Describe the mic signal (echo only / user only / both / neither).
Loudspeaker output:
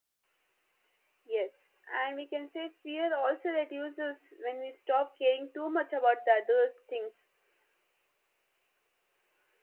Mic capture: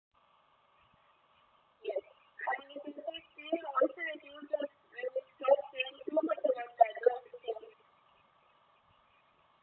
echo only